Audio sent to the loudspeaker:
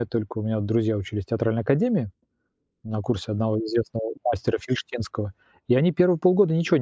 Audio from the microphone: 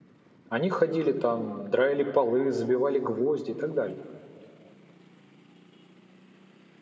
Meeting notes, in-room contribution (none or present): present